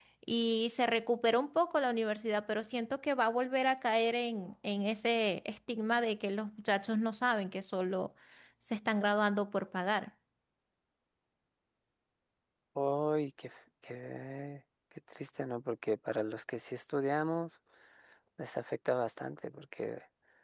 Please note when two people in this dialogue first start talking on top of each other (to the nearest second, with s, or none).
none